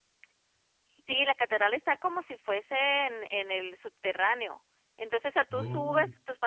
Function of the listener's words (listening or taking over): listening